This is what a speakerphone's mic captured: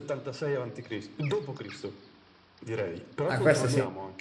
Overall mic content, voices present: both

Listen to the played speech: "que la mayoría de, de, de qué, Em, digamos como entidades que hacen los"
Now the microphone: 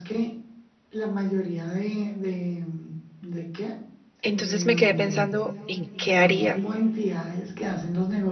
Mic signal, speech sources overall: both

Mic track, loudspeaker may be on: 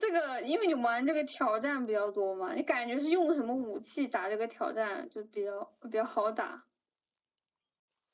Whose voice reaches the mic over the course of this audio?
echo only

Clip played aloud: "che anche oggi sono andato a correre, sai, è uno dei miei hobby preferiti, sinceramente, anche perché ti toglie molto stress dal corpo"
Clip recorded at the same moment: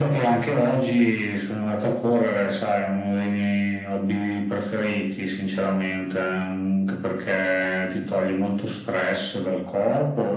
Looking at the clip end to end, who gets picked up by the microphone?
echo only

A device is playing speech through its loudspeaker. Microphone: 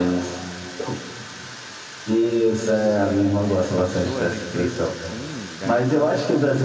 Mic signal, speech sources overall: both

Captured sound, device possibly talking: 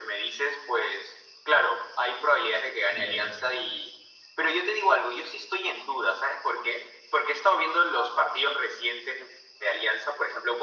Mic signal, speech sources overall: both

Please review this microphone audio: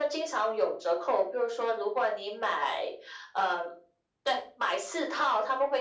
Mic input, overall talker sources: echo only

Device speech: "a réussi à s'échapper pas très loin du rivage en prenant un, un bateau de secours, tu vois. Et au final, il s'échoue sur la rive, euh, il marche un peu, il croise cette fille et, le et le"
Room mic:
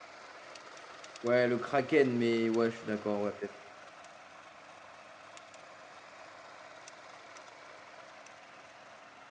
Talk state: user only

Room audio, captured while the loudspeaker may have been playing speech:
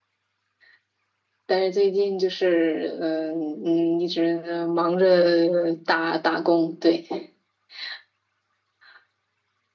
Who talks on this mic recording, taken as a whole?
echo only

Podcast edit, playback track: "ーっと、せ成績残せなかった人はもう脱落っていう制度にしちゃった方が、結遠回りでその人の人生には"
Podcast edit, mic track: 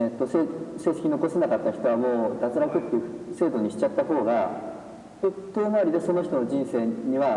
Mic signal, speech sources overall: both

